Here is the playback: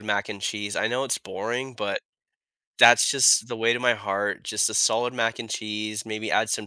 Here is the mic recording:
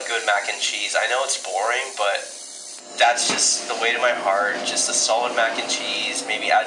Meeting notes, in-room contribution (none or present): none